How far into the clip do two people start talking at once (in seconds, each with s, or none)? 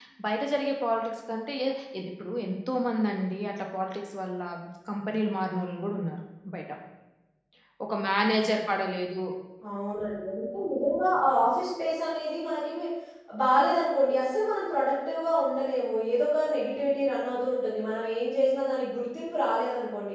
none